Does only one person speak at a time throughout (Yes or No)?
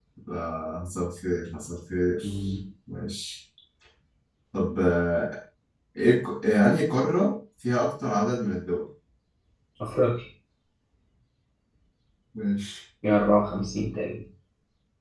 Yes